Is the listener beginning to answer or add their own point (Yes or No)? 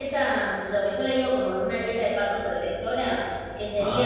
No